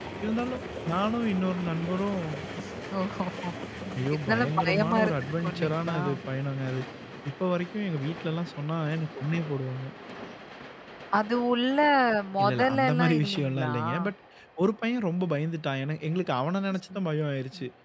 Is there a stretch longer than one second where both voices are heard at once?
Yes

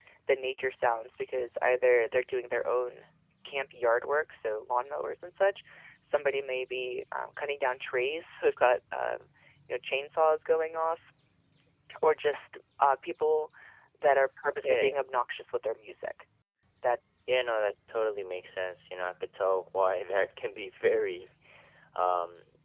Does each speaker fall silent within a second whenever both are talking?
Yes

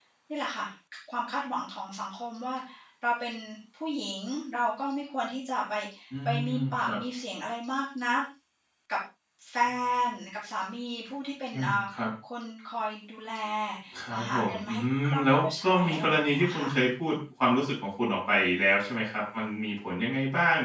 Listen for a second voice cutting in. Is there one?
Yes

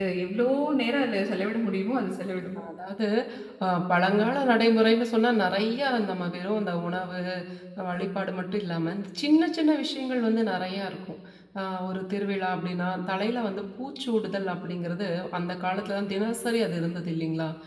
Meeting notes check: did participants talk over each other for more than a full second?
No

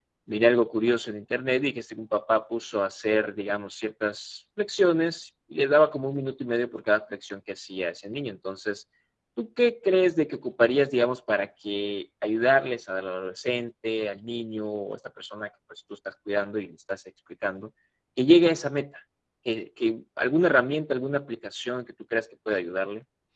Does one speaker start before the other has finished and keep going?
No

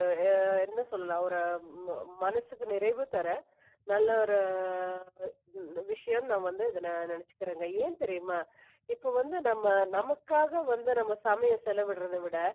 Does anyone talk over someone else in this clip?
No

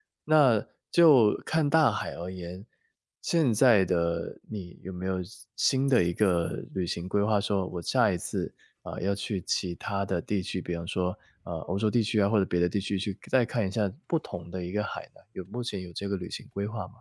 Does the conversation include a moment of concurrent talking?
No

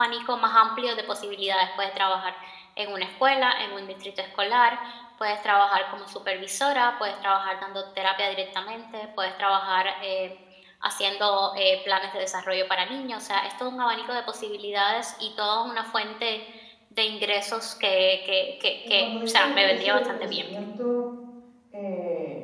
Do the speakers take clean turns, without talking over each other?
No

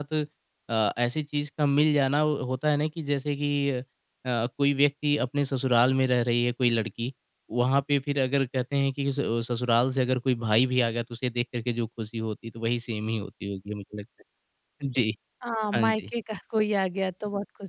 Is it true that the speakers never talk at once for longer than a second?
Yes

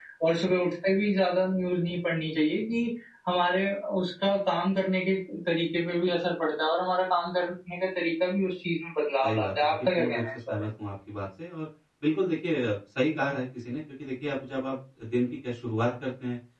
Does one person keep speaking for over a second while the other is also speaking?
Yes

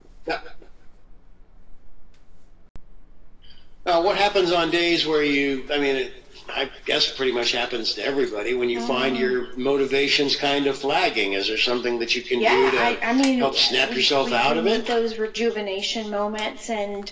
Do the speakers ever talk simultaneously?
Yes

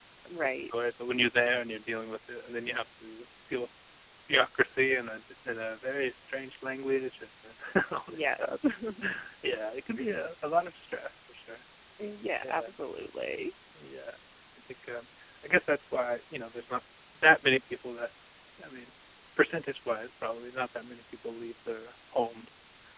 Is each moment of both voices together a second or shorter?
Yes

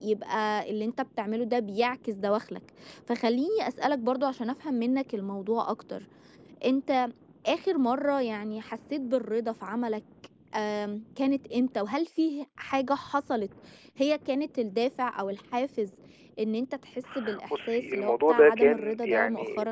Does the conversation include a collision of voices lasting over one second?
Yes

